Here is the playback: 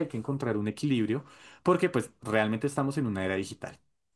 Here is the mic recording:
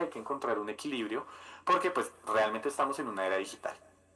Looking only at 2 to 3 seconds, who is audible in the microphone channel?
echo only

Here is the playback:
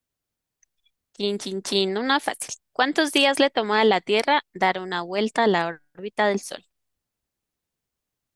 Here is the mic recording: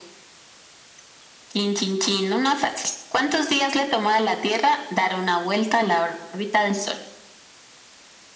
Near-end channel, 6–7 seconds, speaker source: echo only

